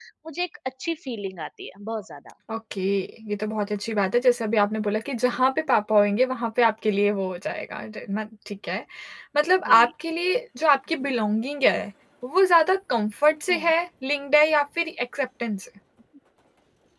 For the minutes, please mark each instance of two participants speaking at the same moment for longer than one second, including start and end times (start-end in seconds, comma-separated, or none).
none